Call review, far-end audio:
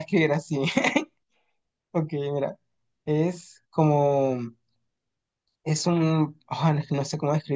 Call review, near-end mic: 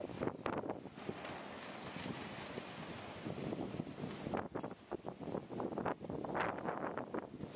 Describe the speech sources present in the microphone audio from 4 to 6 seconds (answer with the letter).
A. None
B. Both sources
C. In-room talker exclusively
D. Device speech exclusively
A